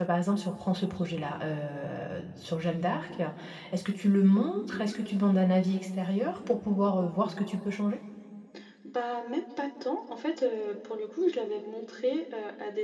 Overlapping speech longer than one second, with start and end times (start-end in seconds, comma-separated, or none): none